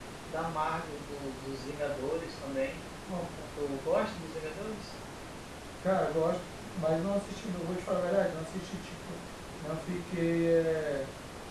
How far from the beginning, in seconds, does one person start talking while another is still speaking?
none

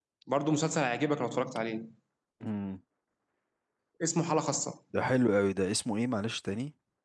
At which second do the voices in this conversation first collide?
none

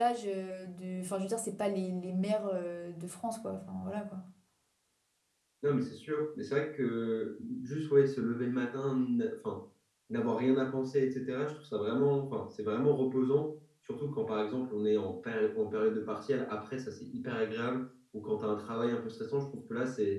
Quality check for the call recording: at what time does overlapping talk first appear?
none

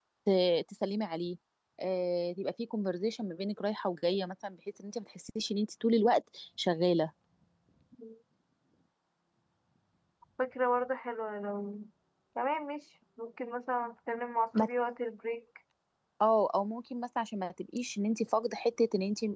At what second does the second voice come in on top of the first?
none

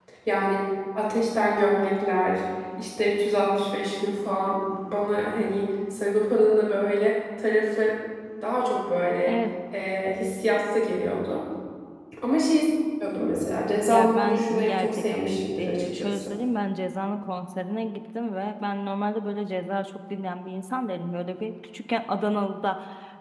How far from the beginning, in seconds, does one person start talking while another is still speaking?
13.9 s

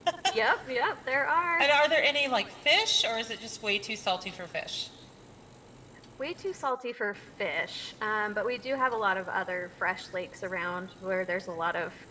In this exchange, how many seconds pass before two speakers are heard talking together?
none

